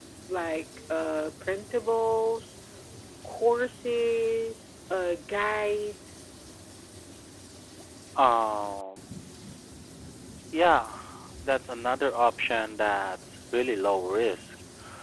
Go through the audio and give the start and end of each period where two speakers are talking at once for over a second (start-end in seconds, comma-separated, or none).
none